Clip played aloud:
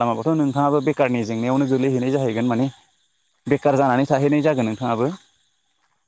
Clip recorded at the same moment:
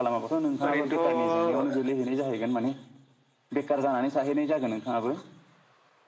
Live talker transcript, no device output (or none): ओरैनोथ'